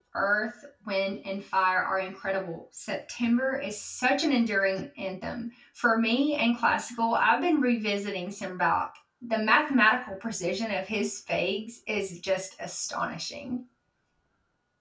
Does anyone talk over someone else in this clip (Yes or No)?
No